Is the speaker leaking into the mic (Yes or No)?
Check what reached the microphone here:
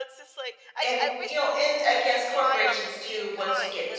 Yes